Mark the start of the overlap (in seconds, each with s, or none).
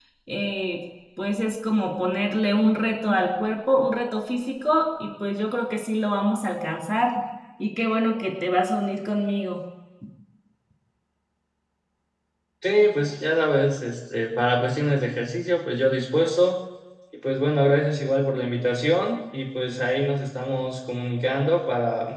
none